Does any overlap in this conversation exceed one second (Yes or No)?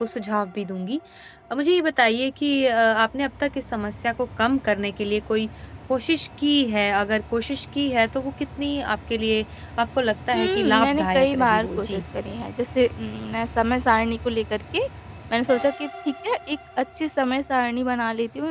Yes